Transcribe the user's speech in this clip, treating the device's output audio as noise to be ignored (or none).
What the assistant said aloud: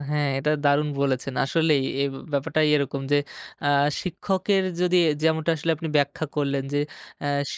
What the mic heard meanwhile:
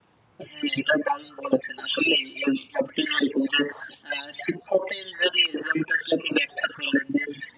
none